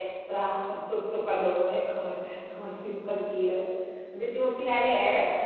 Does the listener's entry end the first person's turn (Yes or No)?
No